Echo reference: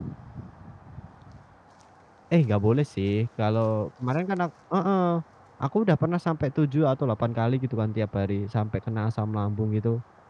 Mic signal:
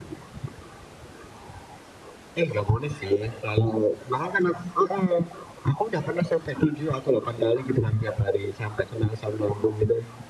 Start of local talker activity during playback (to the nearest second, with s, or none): none